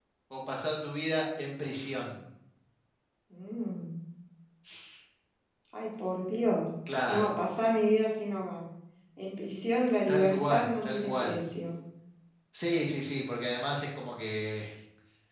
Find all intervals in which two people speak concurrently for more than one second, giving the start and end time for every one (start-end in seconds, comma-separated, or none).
10.1-11.4